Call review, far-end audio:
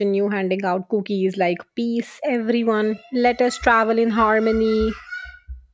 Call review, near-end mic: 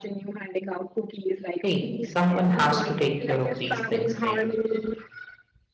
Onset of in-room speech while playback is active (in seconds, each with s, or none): 1.6 s